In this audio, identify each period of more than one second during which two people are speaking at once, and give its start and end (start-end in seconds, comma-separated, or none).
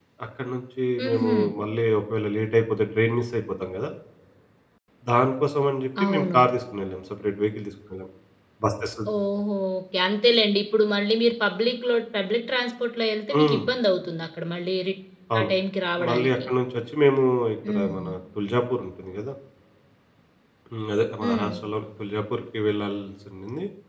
none